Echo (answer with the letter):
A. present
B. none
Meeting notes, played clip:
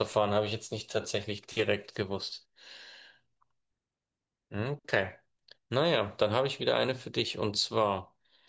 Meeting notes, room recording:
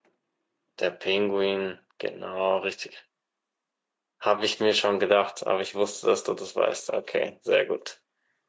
B